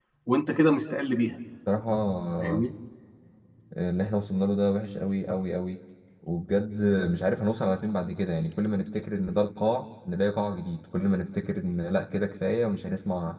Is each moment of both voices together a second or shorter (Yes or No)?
Yes